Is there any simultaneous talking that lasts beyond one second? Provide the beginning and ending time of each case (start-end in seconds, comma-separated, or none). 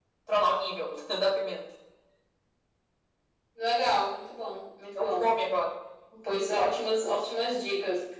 none